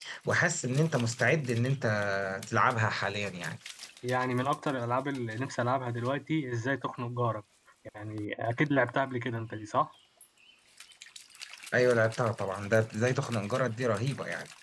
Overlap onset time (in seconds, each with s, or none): none